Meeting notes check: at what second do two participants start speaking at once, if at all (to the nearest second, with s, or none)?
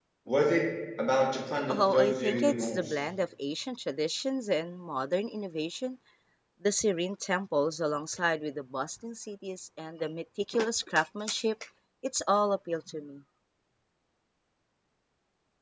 2 s